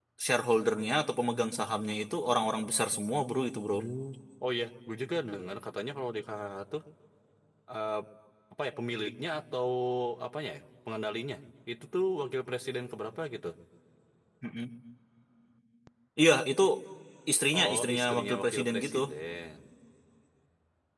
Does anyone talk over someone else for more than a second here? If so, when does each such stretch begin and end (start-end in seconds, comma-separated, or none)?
17.6-19.0